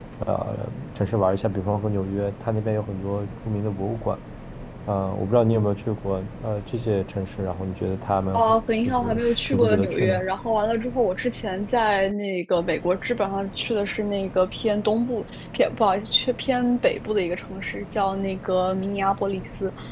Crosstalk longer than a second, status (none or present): present